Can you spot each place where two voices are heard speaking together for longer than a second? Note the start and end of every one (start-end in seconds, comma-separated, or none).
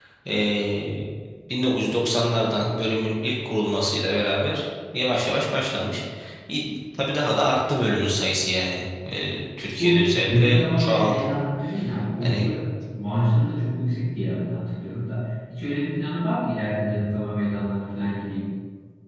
9.8-11.2